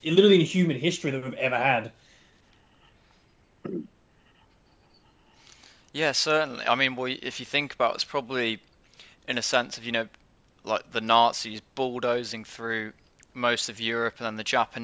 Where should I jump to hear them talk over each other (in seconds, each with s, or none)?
none